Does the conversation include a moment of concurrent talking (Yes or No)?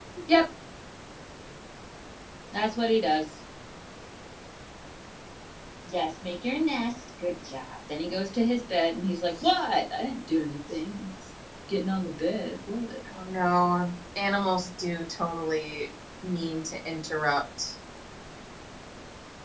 No